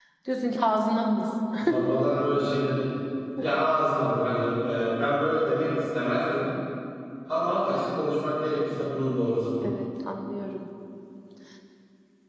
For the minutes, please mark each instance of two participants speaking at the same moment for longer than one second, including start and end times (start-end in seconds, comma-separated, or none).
none